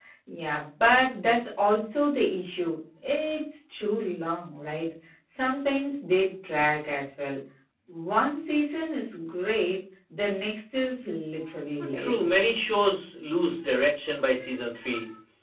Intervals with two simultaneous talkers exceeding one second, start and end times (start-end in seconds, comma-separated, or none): none